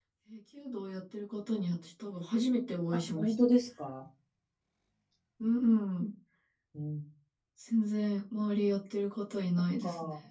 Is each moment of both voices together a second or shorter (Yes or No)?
Yes